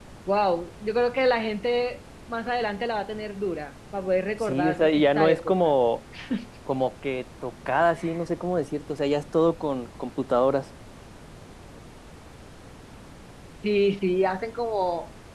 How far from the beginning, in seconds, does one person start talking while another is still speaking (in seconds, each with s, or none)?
4.4 s